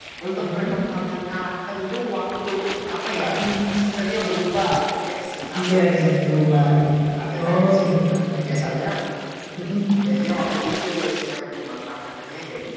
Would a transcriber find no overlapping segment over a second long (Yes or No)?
No